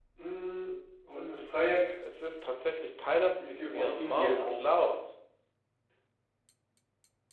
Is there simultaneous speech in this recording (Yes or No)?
Yes